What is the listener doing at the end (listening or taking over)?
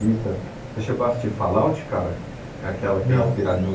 listening